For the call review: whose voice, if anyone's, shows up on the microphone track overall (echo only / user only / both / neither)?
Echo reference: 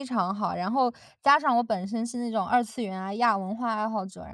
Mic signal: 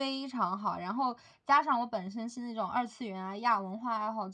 echo only